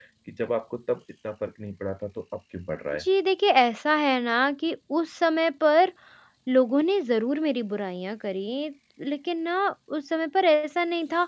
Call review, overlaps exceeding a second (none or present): none